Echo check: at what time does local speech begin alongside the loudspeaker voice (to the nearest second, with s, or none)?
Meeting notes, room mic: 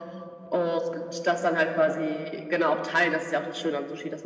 none